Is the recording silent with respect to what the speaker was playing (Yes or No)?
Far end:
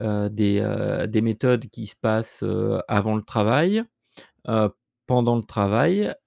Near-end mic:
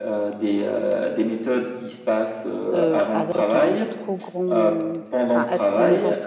No